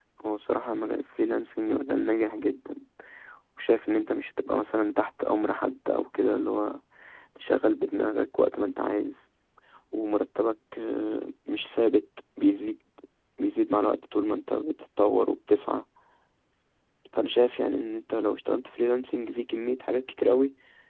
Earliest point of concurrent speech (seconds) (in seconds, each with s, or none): none